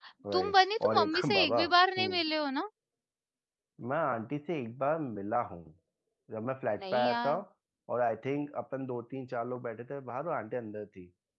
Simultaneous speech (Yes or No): Yes